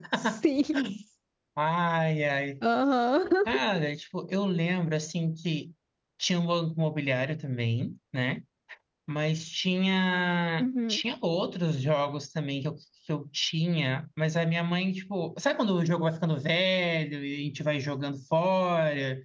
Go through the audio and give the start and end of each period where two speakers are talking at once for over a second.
none

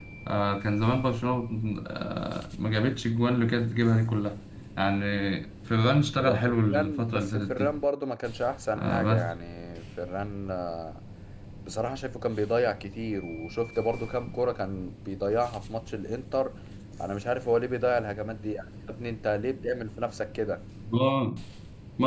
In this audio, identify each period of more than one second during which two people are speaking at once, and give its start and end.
6.2-7.7

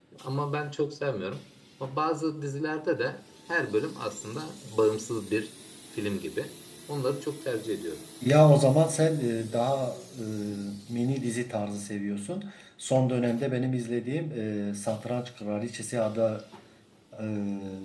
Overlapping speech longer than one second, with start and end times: none

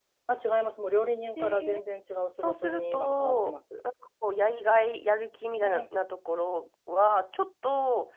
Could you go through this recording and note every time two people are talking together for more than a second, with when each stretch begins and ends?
2.4-3.8

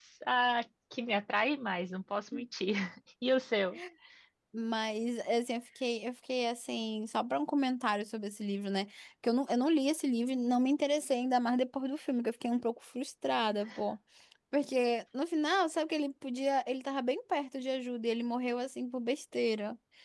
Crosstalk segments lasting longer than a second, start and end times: none

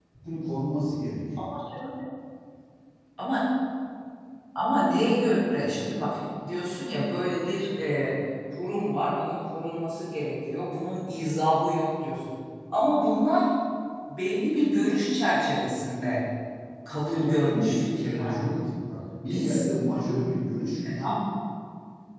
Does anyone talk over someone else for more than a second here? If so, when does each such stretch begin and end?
17.0-18.4

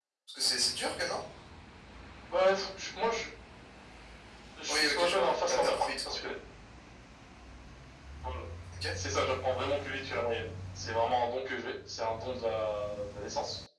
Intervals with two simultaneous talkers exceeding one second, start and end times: 4.7-6.2

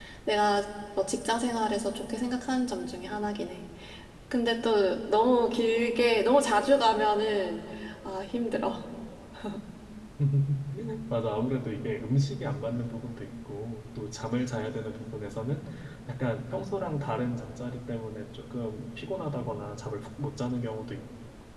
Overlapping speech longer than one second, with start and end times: none

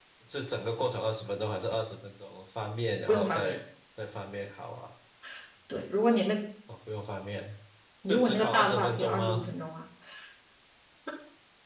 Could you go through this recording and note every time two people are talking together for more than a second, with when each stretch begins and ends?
8.1-9.4

